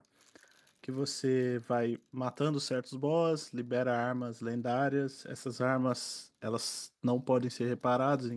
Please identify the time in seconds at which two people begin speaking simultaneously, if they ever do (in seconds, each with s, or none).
none